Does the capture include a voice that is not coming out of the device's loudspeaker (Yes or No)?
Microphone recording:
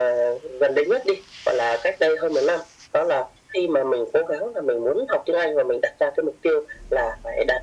No